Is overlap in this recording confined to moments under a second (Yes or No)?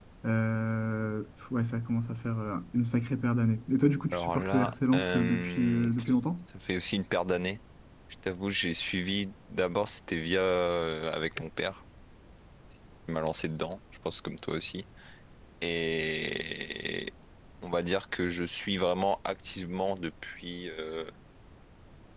No